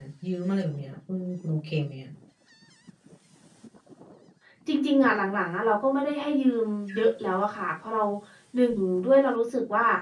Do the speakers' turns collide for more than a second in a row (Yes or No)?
No